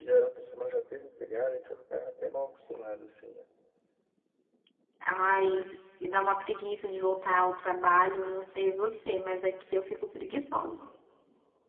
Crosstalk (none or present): none